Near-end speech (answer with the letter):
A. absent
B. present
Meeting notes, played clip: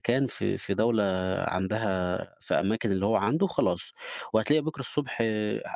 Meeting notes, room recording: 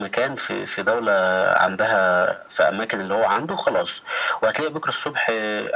A